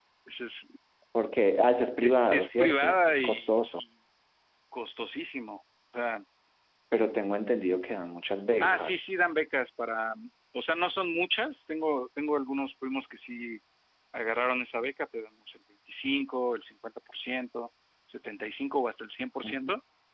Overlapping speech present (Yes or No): Yes